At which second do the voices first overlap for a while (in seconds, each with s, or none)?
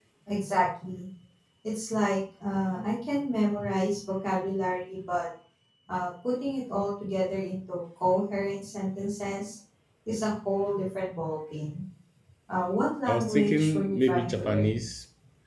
13.1 s